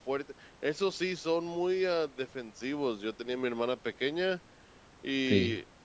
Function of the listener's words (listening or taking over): listening